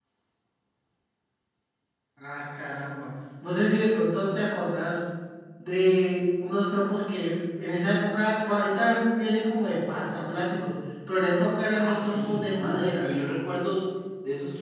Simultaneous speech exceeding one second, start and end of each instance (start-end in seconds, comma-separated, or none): 11.7-13.1